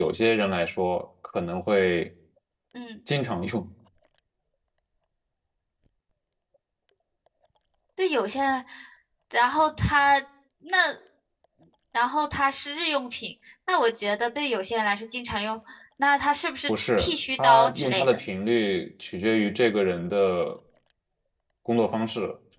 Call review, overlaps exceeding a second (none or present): present